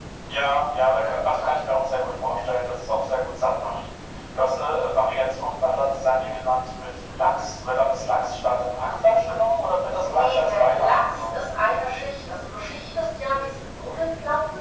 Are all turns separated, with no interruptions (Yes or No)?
No